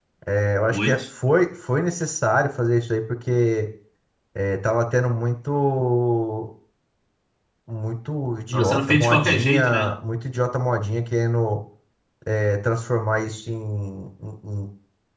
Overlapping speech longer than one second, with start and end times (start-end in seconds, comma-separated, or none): 8.5-9.9